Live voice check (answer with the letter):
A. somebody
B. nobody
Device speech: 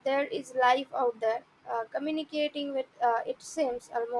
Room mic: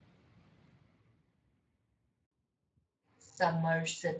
A